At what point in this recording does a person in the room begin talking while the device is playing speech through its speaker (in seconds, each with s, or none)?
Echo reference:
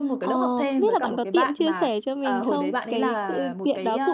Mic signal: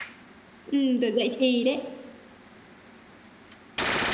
0.6 s